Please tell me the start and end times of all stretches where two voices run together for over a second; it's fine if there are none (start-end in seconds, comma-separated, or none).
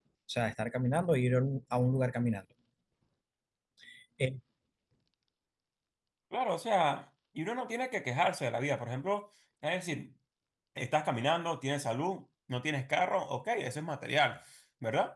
none